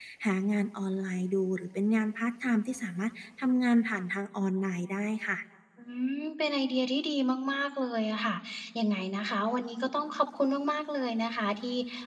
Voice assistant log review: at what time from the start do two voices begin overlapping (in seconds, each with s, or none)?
none